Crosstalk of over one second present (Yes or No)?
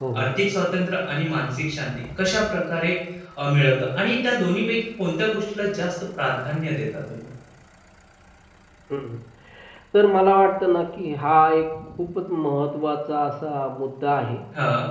No